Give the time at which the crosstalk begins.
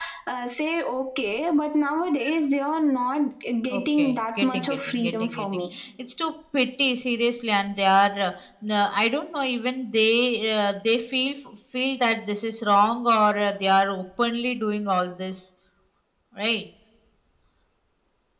4 s

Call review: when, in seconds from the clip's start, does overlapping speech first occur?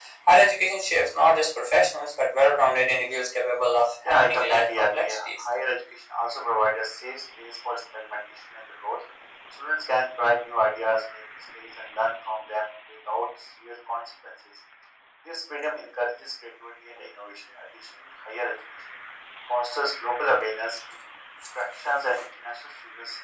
4 s

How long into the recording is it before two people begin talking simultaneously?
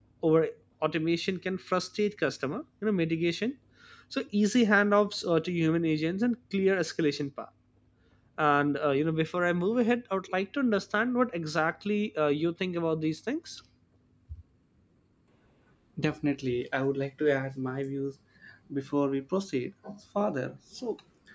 none

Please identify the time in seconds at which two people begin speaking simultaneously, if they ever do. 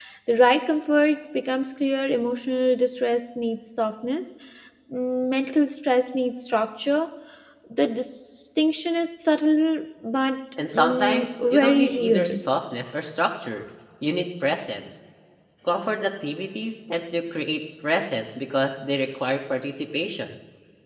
11 s

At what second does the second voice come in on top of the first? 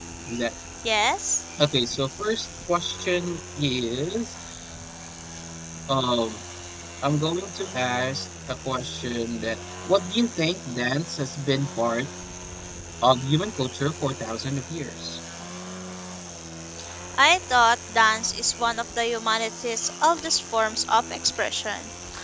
none

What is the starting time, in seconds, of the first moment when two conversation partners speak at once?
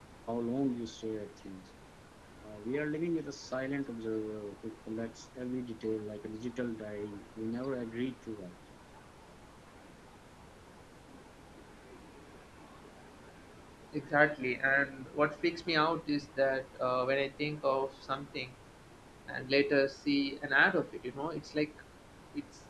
none

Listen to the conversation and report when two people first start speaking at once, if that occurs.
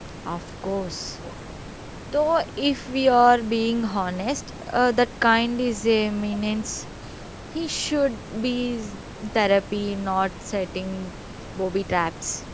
none

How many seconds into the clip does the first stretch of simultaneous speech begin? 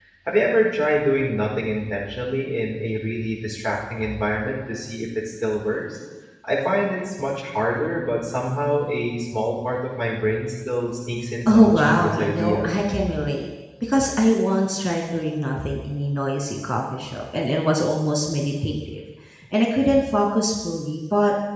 11 s

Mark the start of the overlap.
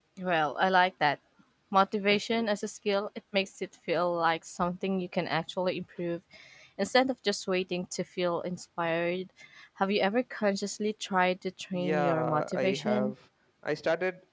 12 s

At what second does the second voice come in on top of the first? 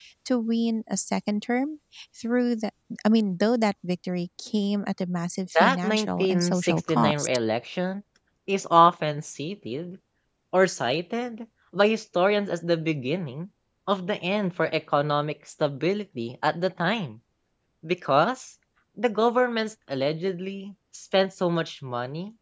6 s

